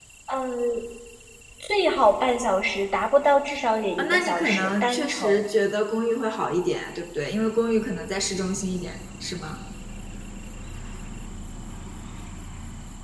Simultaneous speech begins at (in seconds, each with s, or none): 4.0 s